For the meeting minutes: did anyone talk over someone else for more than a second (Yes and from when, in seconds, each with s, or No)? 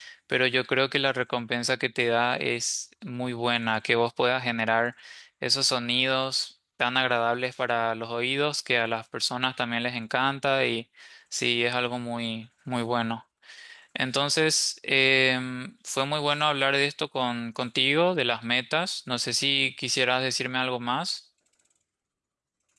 No